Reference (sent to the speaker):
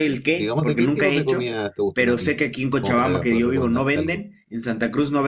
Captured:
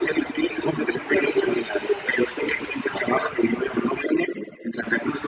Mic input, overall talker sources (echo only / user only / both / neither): echo only